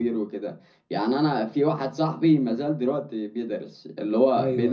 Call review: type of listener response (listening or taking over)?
listening